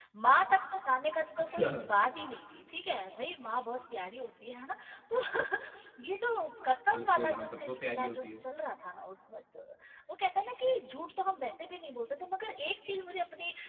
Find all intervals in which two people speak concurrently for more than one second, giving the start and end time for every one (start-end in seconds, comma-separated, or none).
6.9-8.4